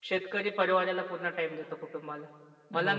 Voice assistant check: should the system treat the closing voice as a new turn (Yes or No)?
No